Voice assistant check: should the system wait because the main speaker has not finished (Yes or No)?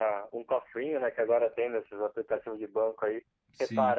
Yes